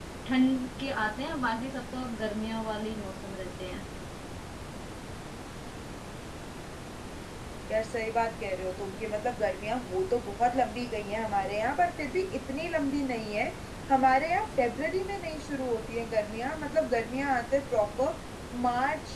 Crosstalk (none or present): none